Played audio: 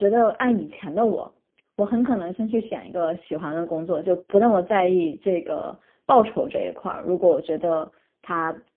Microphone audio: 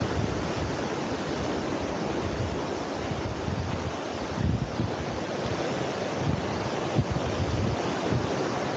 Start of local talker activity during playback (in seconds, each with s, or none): none